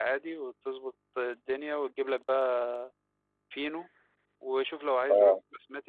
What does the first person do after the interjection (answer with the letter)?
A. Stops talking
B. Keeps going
B